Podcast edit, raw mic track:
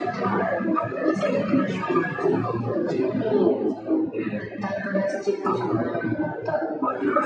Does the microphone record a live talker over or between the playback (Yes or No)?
No